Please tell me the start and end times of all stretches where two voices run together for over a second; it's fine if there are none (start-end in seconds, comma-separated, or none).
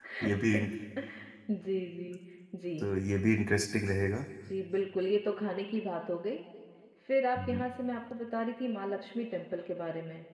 none